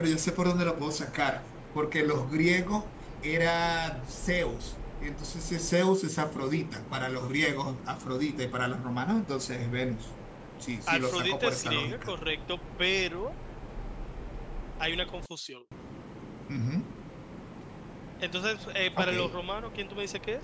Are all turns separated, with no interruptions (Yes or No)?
No